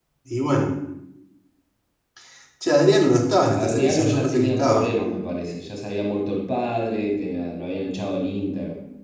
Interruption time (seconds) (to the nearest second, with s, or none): 4 s